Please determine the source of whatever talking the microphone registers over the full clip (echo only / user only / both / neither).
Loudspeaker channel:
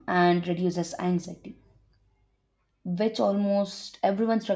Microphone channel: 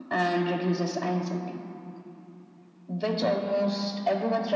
echo only